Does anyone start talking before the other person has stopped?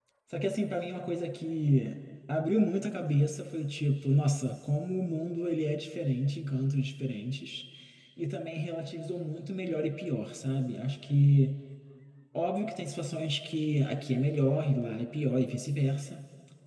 No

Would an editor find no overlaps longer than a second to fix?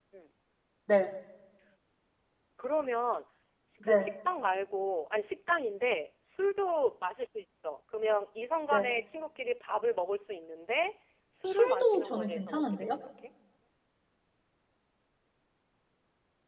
No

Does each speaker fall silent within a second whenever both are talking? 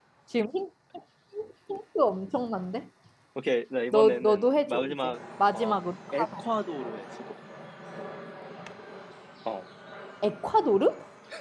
No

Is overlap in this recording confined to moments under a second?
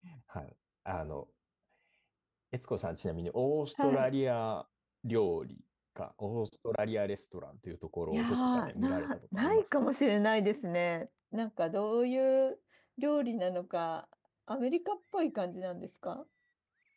No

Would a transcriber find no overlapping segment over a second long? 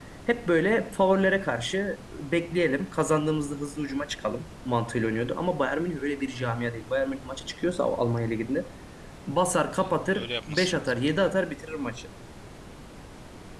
No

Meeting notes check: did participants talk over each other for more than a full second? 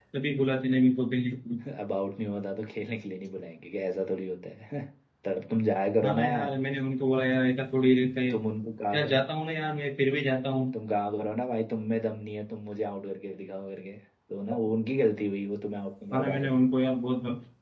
No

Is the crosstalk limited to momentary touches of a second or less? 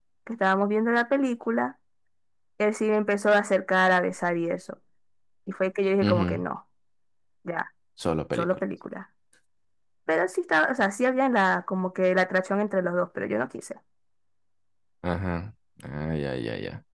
Yes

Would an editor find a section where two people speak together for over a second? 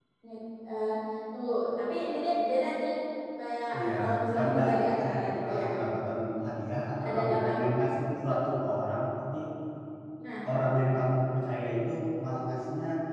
Yes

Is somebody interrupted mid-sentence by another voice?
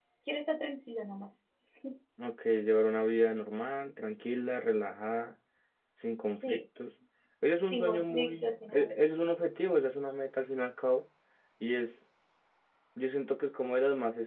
Yes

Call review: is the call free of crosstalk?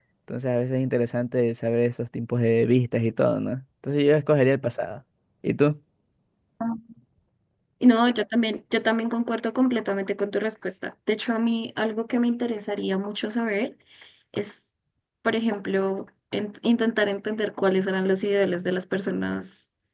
Yes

